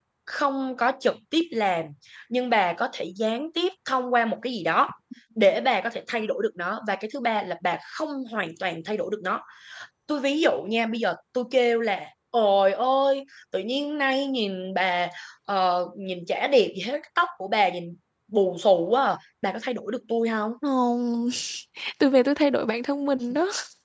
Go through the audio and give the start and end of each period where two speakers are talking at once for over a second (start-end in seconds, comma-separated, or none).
none